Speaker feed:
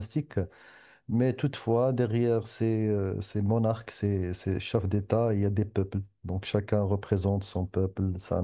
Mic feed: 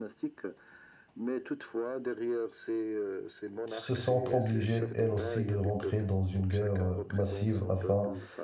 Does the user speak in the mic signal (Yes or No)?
Yes